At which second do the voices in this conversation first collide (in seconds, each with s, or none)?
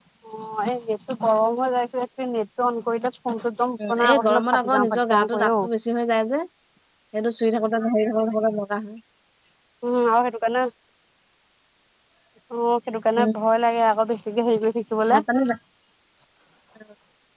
3.8 s